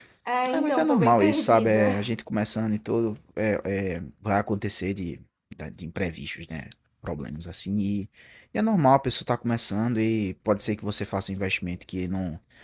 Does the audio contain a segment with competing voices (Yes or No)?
Yes